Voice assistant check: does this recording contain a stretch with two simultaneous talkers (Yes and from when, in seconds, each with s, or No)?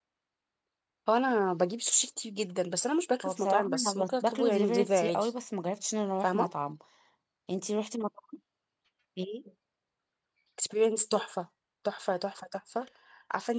Yes, from 3.2 s